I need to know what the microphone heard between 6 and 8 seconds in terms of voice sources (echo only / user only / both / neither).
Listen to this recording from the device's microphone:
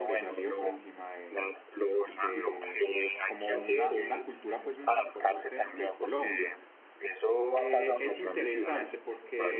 both